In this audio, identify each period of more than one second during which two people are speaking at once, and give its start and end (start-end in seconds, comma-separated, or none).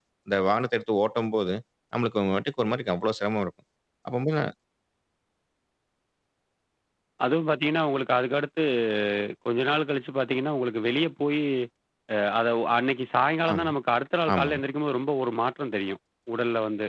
none